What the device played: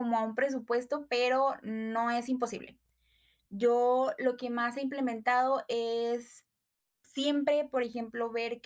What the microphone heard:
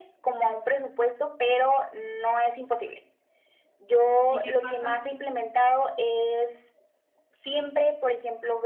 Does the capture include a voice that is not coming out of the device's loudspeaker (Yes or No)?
Yes